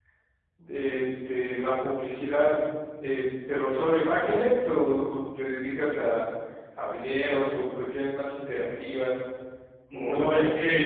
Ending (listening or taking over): taking over